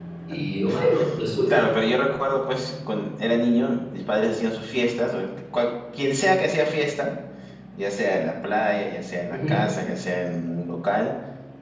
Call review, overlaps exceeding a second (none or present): none